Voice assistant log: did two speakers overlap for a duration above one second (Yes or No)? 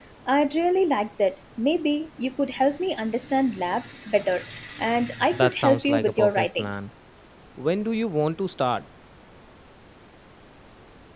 Yes